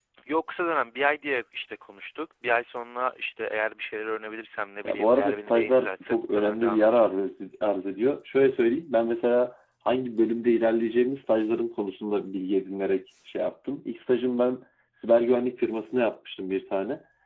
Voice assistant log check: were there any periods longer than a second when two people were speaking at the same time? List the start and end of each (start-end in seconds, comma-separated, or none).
4.8-7.3